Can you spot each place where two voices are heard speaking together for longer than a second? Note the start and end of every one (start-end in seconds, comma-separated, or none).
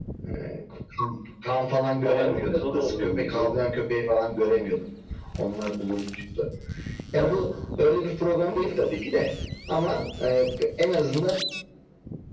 2.0-3.5